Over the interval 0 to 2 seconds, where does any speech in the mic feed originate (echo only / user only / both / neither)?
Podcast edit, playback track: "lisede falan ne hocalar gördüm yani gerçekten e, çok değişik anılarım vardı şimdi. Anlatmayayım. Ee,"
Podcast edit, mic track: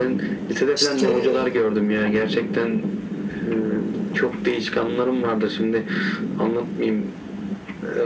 both